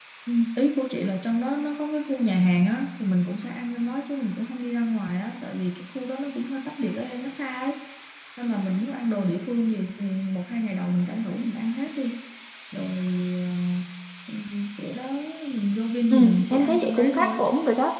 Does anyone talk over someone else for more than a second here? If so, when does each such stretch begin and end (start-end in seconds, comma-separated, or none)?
16.1-17.4